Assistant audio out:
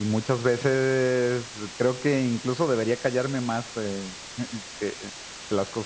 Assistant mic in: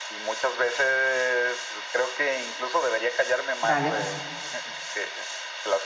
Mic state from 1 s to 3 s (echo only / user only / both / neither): echo only